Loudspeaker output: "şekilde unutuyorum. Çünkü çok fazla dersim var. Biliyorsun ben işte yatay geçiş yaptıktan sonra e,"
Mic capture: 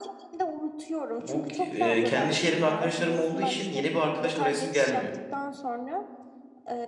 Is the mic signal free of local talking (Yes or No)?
No